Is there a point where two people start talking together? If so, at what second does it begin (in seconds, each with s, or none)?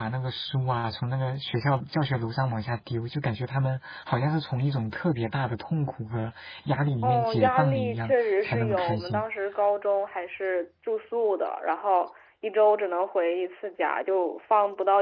7.0 s